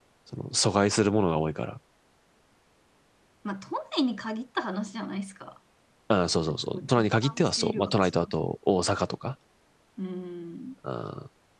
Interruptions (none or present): present